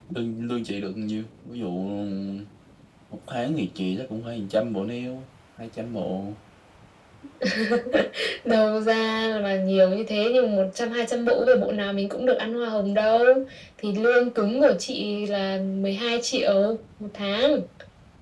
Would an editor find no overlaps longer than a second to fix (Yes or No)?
Yes